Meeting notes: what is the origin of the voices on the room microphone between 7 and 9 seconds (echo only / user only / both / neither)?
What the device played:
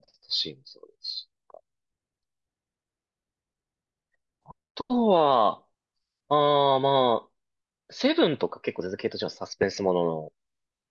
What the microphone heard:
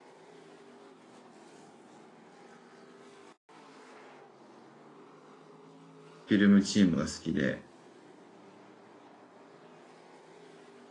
user only